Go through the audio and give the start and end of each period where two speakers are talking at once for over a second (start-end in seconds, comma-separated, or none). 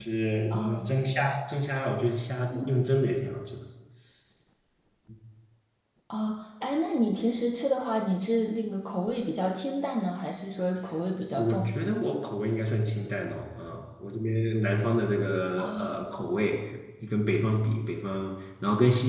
none